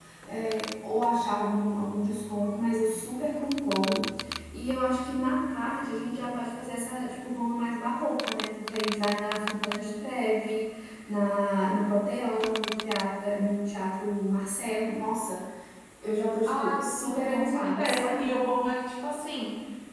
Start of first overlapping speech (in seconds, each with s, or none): 16.5 s